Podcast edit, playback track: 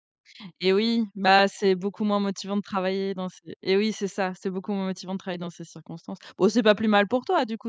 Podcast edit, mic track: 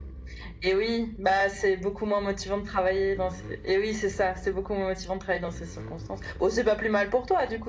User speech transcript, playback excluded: none

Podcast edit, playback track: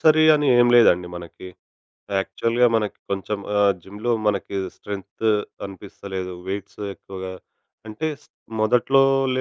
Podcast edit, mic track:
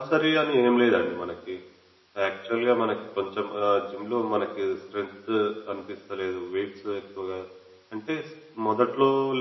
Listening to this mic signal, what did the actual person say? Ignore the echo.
none

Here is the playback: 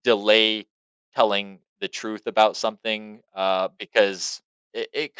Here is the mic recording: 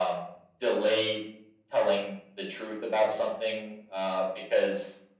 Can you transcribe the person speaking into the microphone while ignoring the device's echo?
none

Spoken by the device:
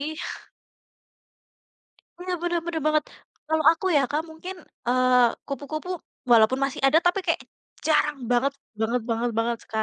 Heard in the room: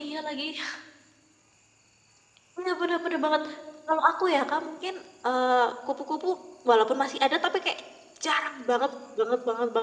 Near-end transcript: none

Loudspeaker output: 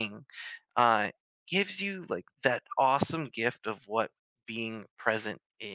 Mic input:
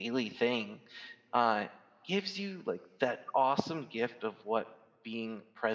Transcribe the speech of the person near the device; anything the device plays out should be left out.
none

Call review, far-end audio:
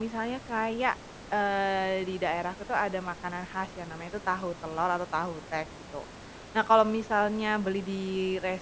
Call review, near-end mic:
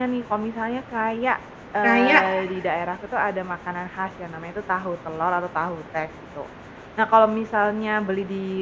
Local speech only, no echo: kayak

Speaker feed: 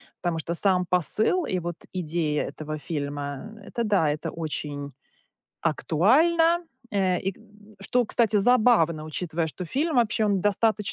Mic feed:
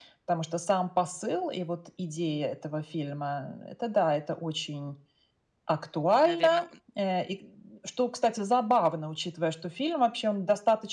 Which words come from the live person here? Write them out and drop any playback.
Наверное,

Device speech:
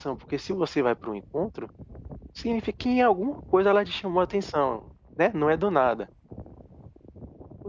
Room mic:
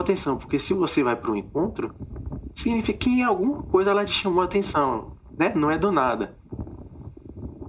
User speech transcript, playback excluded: none

